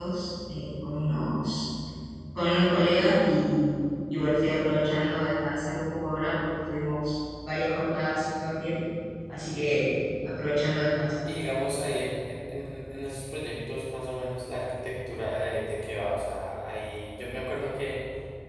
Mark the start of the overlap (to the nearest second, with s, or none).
none